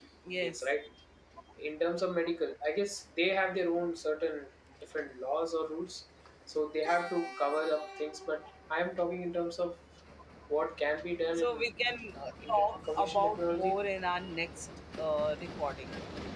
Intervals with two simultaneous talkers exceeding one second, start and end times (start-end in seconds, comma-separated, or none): 12.5-13.8